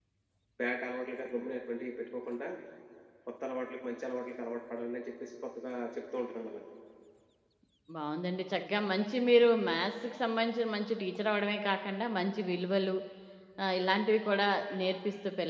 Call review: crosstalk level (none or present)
none